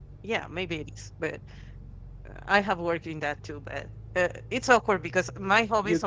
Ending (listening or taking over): taking over